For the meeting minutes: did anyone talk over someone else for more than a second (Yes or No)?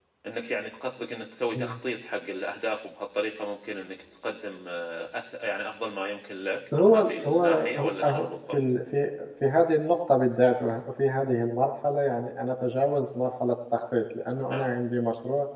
Yes